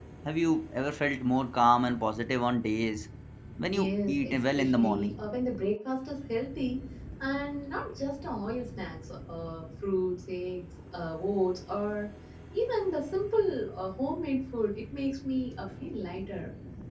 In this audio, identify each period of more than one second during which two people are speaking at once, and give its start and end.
3.7-5.1

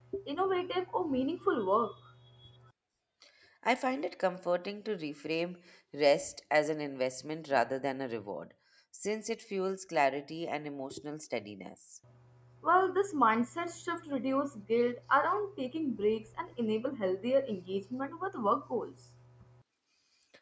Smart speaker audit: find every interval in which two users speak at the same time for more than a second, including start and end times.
none

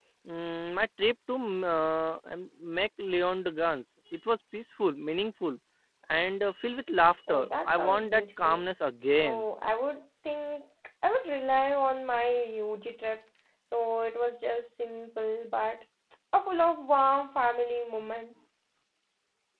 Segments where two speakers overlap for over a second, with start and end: 7.3-8.6

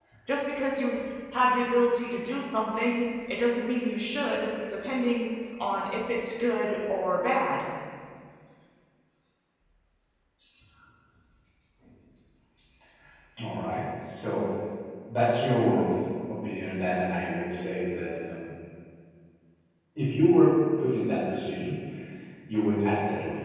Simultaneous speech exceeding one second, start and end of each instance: none

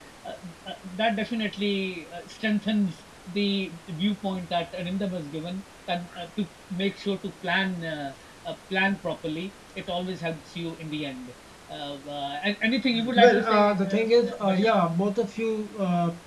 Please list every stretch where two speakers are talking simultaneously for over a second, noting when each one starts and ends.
13.2-14.7

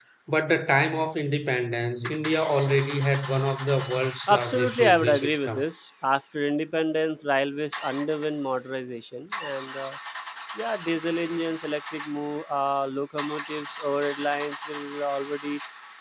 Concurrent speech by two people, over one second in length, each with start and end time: 4.3-5.6

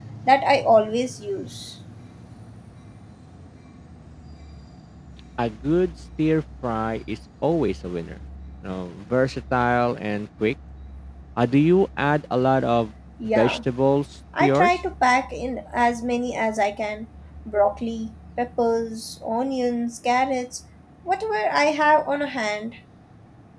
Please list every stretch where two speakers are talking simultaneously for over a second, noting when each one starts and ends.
none

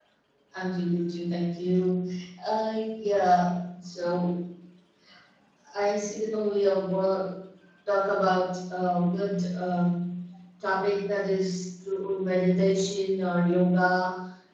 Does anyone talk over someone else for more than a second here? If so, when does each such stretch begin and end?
none

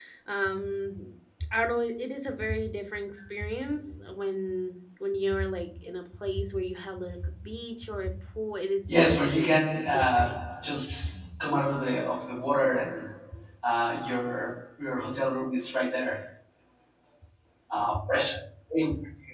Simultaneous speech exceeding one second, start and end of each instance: 8.9-10.4

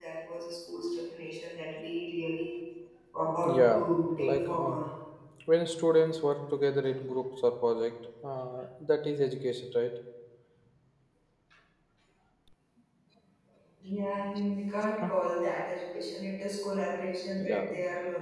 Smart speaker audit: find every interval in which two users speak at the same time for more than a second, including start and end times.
3.4-4.8

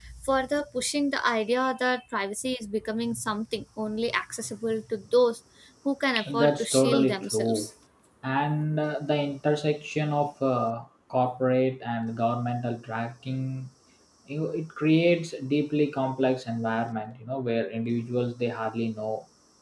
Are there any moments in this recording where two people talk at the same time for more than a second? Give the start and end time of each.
6.3-7.7

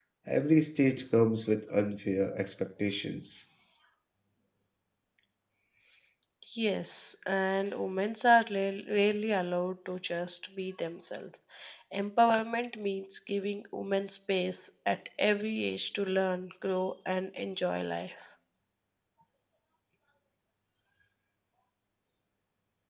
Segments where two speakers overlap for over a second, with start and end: none

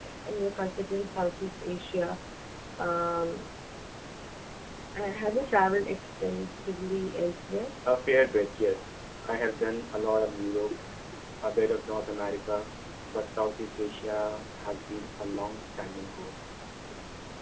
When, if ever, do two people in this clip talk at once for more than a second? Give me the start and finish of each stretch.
none

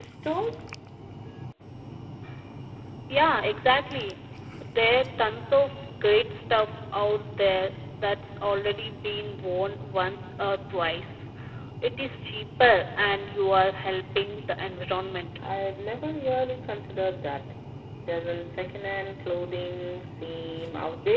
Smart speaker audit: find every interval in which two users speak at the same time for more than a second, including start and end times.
none

